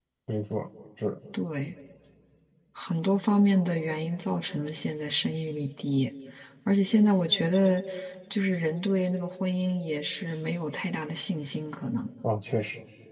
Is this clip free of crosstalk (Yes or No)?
Yes